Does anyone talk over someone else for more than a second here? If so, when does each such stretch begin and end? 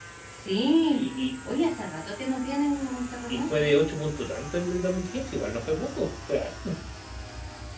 none

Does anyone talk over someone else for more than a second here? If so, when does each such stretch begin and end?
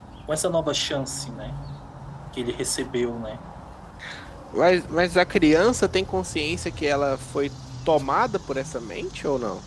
none

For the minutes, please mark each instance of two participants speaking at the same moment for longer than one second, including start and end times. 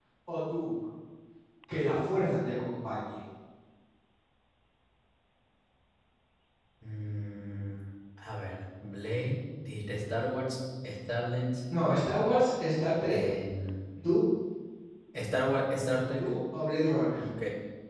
none

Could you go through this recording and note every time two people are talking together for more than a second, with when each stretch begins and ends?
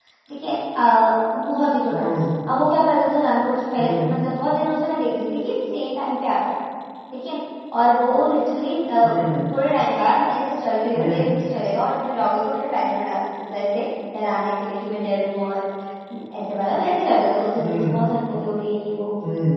none

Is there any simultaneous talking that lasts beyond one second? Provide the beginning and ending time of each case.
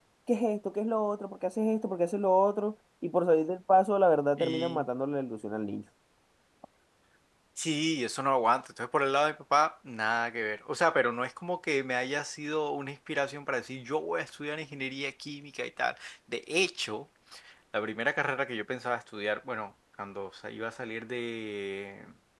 none

